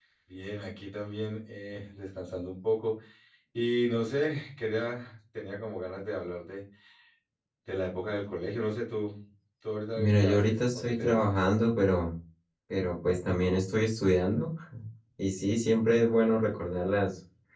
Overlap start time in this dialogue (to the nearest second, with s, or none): 10 s